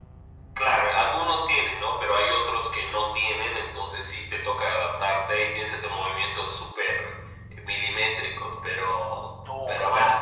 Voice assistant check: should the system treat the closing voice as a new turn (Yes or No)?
Yes